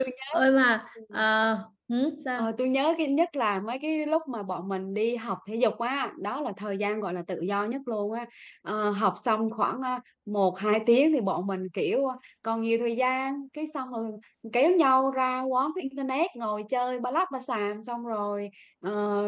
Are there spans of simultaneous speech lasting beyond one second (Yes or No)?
No